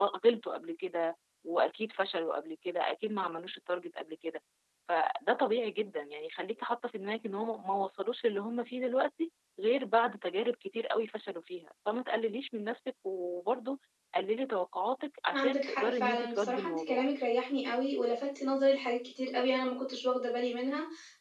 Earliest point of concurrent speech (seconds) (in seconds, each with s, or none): 15.3 s